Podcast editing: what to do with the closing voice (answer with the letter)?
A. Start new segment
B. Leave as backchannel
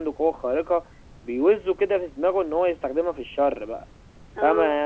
B